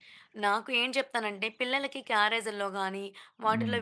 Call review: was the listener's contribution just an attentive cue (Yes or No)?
Yes